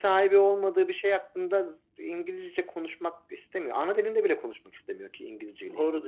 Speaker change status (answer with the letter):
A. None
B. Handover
B